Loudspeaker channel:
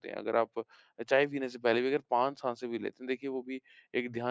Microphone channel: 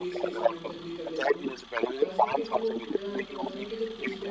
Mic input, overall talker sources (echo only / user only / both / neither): both